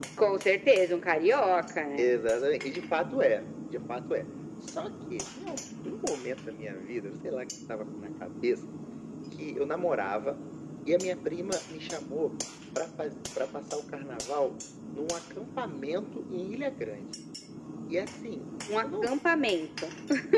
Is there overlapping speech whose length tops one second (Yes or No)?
No